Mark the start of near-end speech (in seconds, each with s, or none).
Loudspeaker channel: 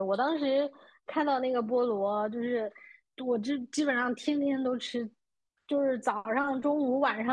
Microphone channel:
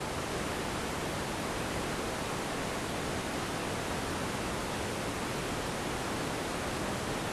none